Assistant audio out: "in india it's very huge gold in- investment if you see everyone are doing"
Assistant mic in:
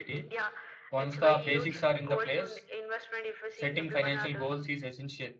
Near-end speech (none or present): present